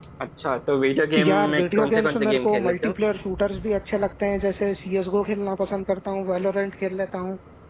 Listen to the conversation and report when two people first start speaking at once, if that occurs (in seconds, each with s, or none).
1.3 s